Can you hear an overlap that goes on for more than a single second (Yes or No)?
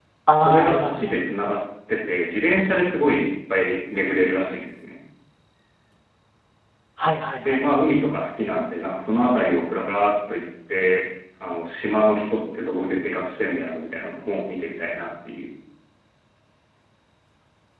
Yes